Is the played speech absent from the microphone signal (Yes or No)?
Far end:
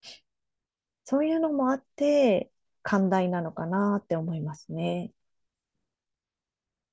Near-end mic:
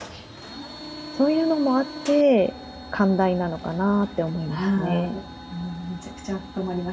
No